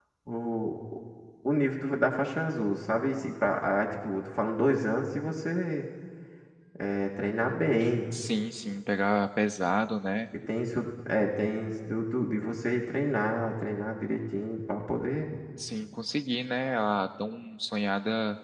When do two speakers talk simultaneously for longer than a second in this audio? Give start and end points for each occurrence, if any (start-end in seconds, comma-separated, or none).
none